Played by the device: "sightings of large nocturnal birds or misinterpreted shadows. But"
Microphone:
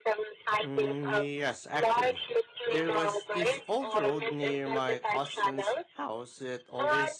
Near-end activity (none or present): present